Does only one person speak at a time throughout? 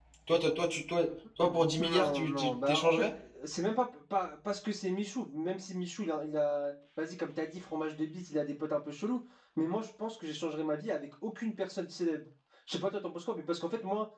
No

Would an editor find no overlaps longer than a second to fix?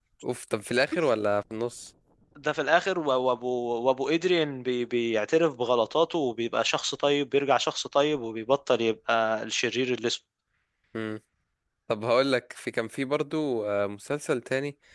Yes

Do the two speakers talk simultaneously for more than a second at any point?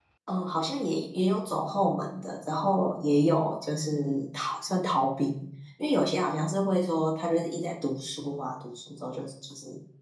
No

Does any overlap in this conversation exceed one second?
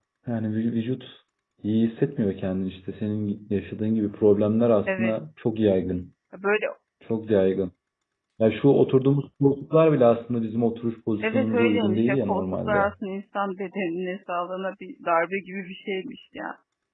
Yes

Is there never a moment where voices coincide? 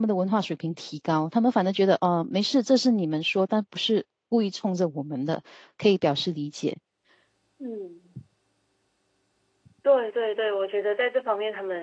Yes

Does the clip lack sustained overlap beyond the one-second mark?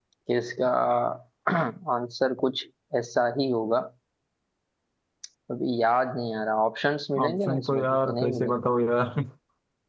No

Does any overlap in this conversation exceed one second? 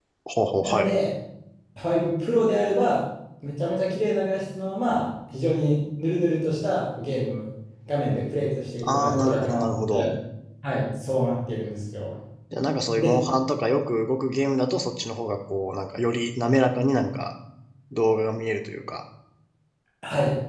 Yes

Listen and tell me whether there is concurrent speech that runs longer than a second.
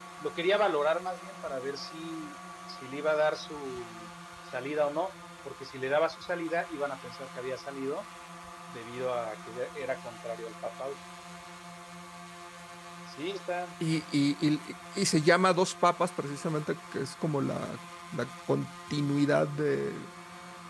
No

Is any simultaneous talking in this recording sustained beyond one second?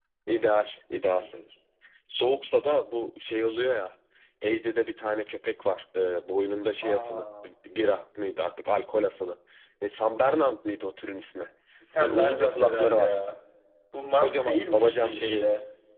Yes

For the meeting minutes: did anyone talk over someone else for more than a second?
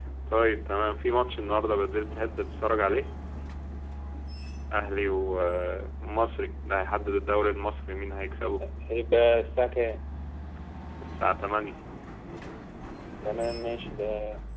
No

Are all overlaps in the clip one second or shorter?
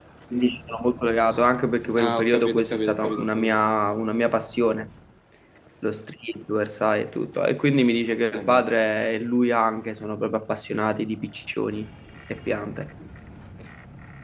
No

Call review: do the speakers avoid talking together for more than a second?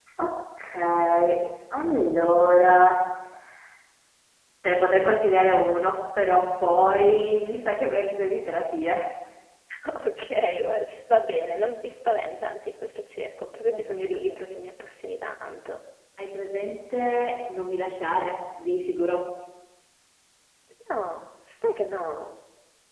Yes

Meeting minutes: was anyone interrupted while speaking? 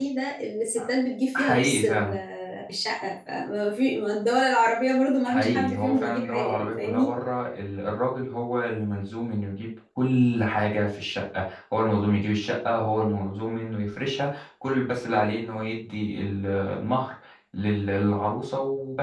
Yes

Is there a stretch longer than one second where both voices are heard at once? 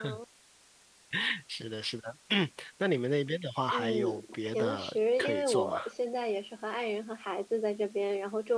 Yes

